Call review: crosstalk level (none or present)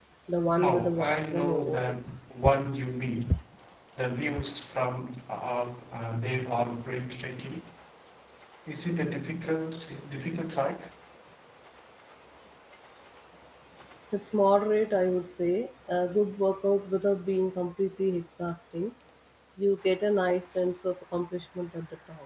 present